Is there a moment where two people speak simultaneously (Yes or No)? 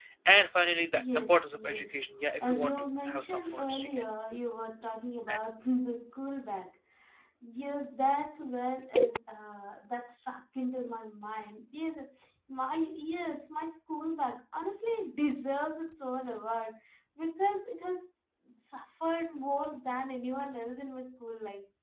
Yes